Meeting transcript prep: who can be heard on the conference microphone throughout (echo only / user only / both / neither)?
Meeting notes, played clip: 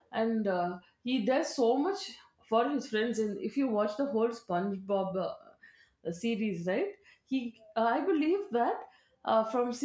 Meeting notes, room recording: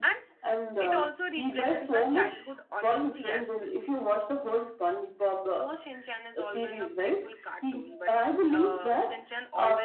both